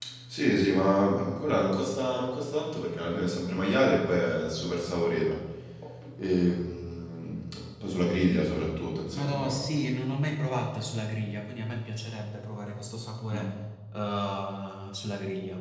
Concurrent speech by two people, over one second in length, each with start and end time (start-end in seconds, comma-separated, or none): none